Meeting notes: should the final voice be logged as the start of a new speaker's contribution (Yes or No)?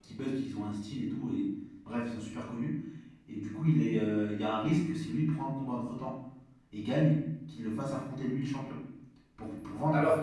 Yes